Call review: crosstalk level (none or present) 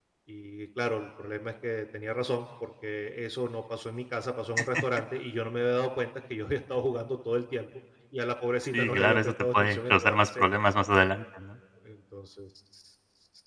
present